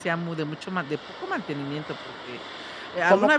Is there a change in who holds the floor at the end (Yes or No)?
No